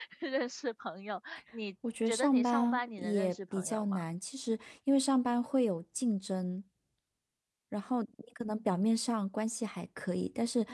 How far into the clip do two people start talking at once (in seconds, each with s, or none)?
2.1 s